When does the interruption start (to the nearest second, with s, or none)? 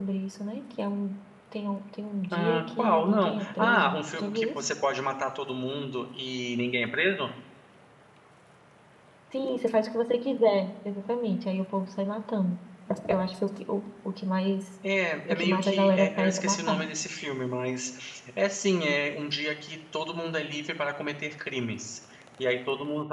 2 s